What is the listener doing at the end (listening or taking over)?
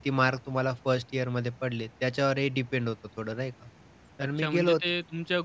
taking over